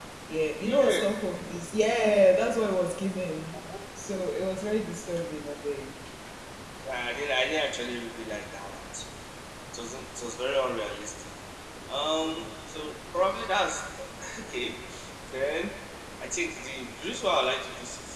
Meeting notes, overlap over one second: none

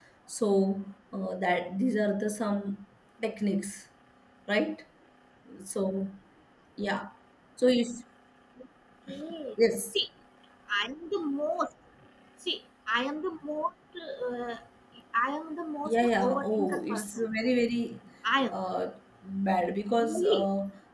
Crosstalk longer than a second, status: present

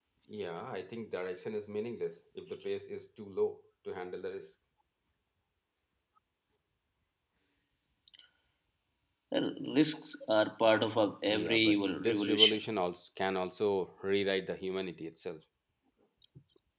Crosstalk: present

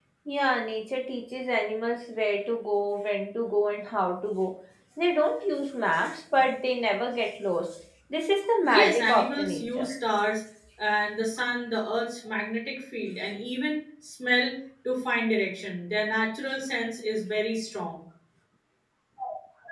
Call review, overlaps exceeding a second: present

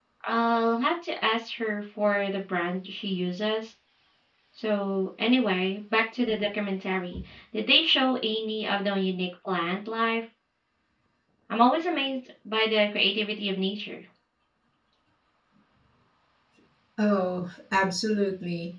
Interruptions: none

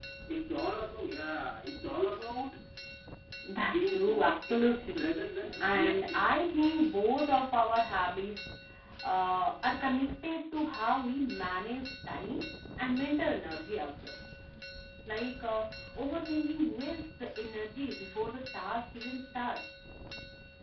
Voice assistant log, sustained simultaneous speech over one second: present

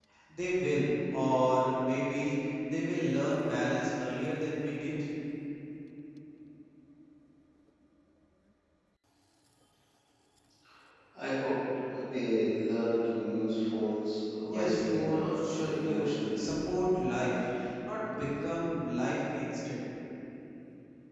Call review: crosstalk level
present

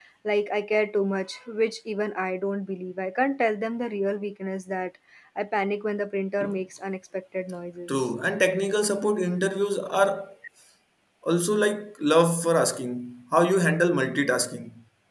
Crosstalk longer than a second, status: none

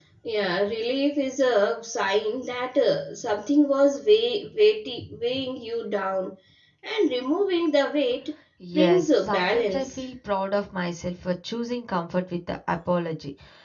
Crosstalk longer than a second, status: present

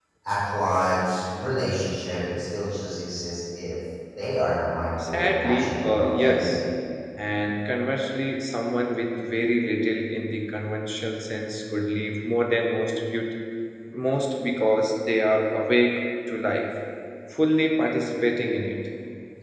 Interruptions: present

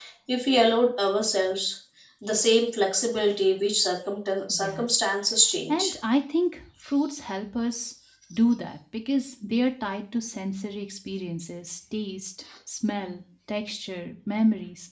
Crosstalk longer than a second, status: none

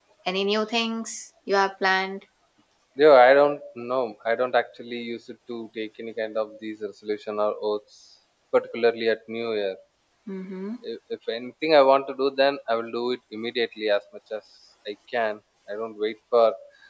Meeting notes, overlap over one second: none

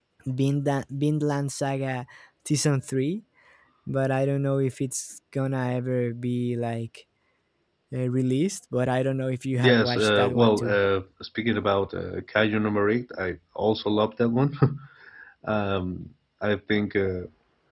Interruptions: present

